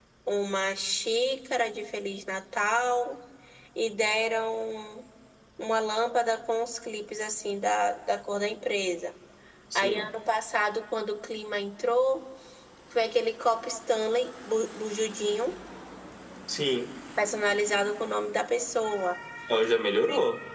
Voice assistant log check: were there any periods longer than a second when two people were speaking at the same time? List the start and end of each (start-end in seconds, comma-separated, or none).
none